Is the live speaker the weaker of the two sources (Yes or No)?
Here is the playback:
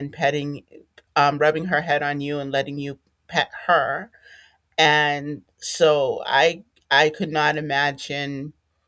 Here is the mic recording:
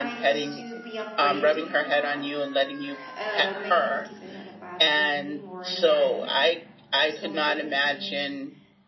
Yes